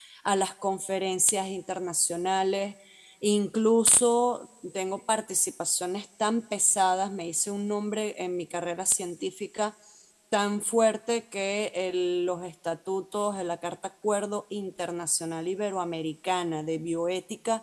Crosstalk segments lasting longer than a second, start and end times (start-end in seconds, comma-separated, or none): none